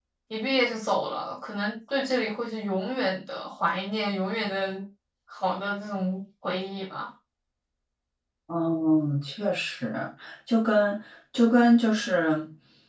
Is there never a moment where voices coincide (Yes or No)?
Yes